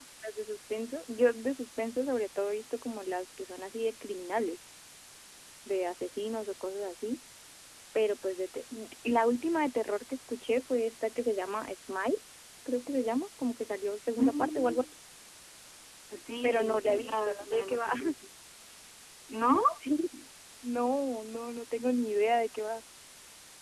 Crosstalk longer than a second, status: present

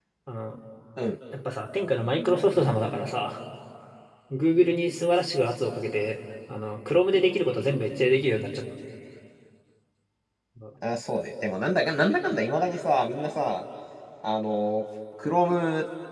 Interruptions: none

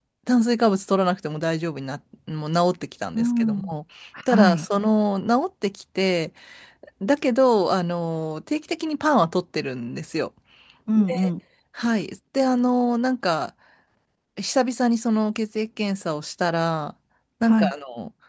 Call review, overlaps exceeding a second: none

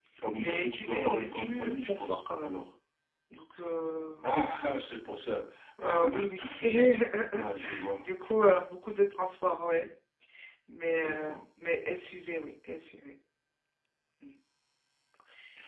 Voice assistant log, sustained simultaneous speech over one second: present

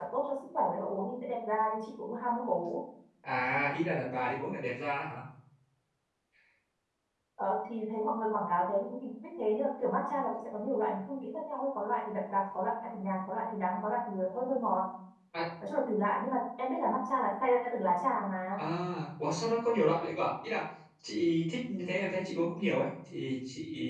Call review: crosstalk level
none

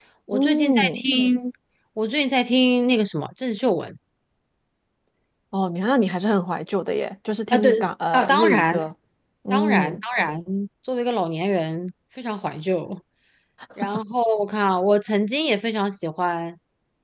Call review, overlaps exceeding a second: present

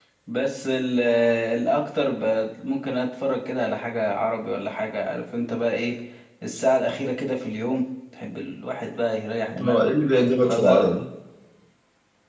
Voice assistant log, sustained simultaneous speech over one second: none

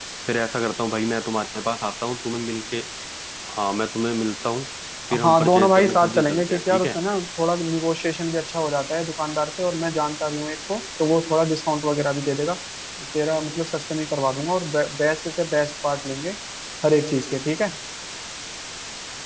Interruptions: present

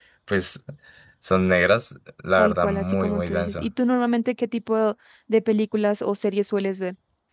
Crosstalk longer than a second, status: present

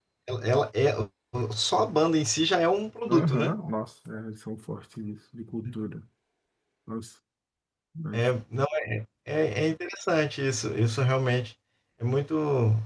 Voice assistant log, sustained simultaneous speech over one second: none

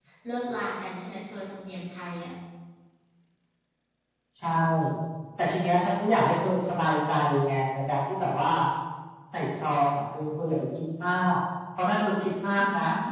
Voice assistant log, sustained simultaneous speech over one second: none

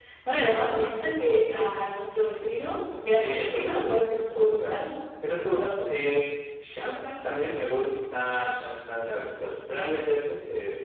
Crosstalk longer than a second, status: present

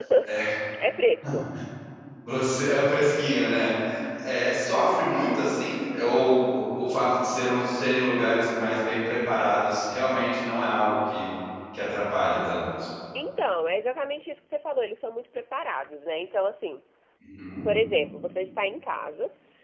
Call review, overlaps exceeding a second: none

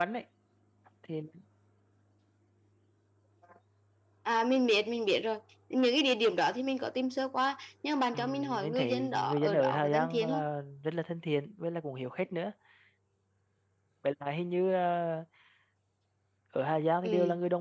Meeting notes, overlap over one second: present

